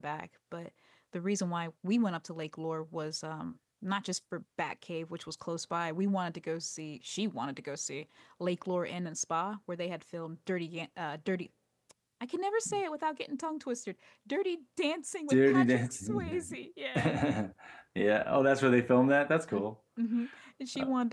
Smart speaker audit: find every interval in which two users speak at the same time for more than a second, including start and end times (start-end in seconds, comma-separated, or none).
15.3-16.6